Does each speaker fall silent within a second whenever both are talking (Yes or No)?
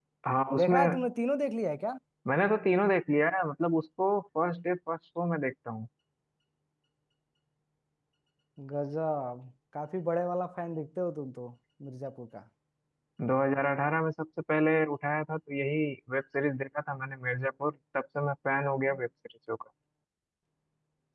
Yes